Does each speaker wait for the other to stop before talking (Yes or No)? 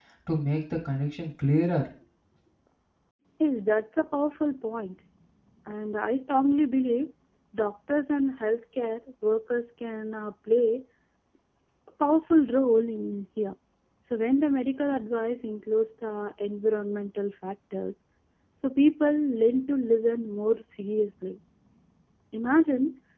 Yes